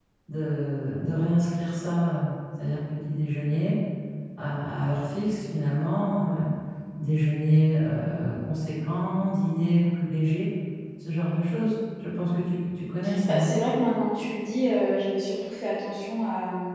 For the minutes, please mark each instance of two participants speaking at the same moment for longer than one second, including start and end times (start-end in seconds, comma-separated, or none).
none